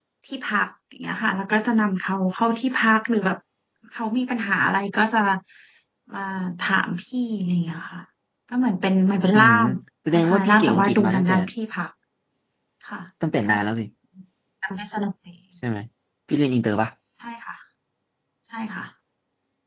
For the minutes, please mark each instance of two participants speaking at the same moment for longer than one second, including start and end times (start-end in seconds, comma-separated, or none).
10.1-11.3